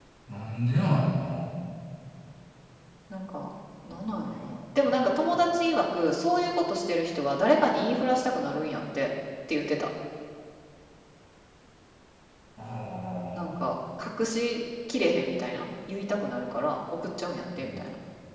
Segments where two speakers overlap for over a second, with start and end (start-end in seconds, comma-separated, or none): none